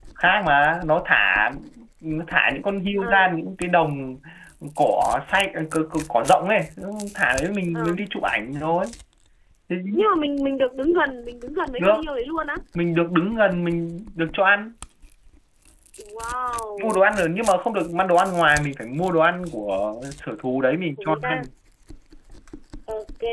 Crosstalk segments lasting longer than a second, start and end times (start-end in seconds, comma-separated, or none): none